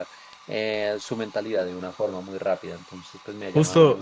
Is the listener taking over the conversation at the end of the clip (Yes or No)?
Yes